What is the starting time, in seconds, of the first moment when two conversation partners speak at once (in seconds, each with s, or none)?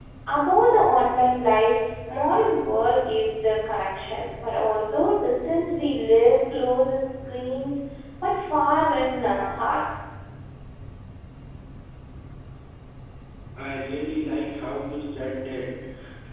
none